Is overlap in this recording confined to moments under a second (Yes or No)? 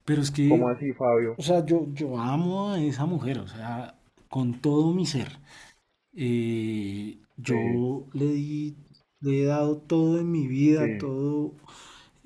Yes